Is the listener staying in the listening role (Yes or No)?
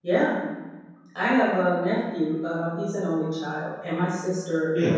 Yes